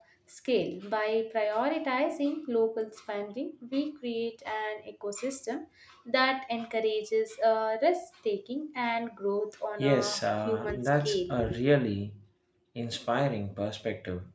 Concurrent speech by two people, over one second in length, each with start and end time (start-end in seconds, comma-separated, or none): 9.8-11.3